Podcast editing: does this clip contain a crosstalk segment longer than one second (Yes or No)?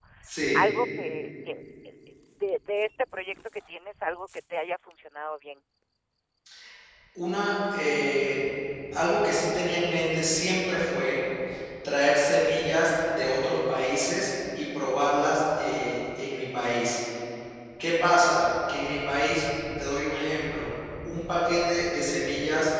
No